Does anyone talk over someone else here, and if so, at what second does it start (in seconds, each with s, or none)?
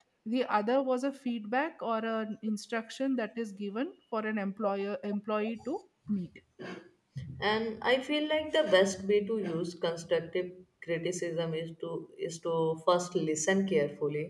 none